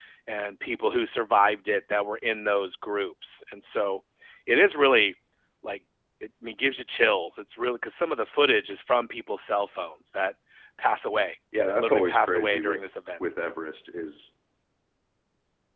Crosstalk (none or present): present